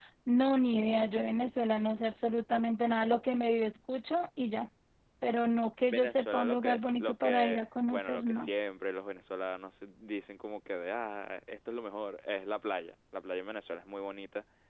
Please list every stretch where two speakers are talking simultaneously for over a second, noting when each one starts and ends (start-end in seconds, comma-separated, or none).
5.9-8.5